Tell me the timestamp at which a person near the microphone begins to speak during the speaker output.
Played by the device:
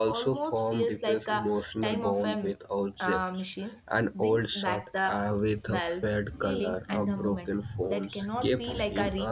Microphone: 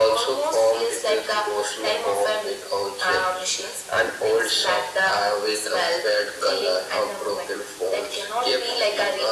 none

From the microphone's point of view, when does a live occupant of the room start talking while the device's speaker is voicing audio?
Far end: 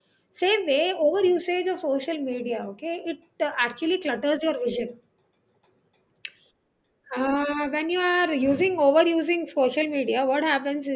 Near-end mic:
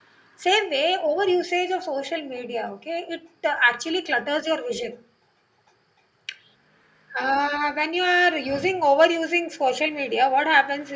none

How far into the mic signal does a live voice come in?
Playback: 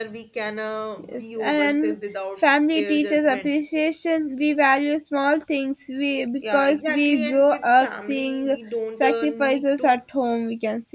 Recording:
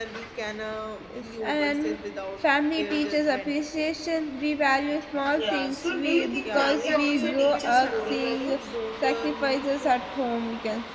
5.3 s

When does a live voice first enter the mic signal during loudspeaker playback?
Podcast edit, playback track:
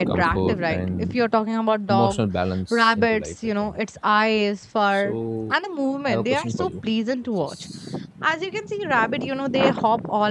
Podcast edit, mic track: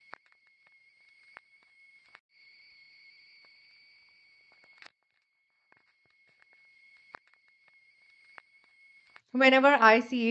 9.3 s

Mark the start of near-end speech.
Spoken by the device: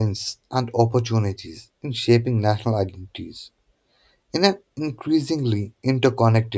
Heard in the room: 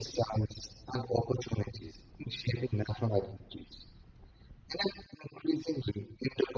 none

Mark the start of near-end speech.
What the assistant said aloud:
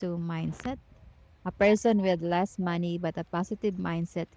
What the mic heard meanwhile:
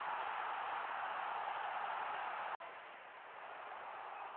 none

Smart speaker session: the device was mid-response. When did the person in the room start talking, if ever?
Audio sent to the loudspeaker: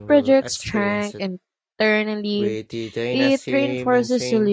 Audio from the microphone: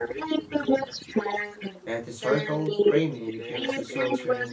1.8 s

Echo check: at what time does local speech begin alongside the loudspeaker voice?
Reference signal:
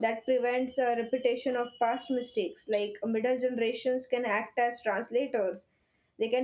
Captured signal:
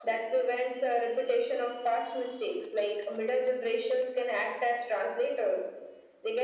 none

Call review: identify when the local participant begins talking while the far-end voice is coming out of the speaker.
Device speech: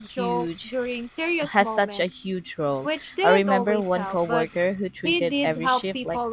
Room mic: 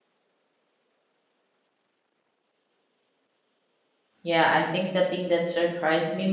4.2 s

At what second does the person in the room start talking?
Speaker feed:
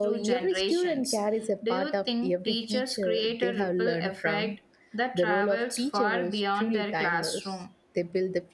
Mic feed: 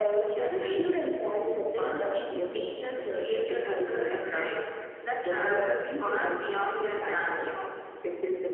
none

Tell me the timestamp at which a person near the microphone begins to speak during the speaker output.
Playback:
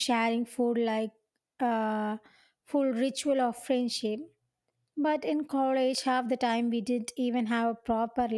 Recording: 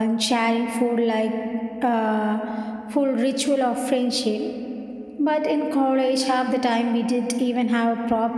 none

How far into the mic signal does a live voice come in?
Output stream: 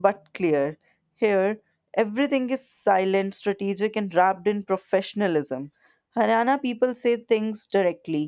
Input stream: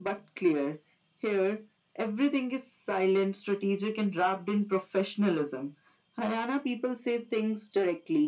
none

